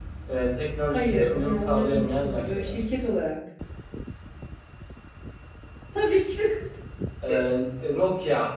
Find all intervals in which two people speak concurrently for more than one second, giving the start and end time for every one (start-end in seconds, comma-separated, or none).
0.9-2.8